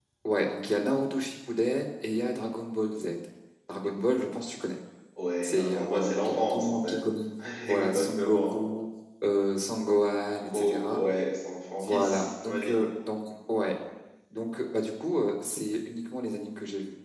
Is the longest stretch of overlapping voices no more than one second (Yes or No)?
No